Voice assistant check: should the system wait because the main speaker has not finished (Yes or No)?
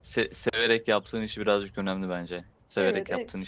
No